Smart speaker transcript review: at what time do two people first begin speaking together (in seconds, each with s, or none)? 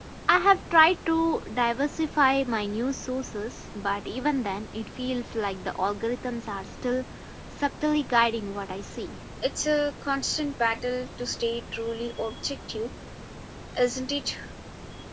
none